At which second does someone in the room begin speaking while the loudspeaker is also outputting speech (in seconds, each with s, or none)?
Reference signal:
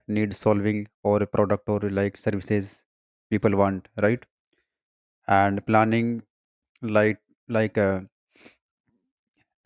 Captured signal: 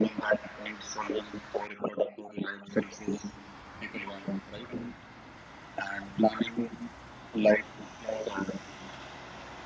none